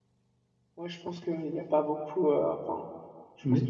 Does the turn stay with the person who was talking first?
Yes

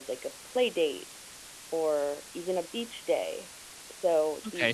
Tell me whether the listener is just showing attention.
No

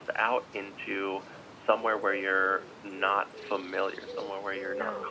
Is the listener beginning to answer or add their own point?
No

